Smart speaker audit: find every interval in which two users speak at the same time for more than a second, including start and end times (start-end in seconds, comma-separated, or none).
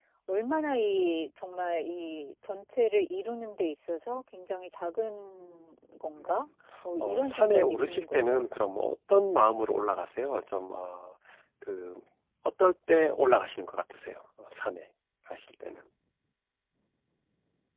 7.0-8.5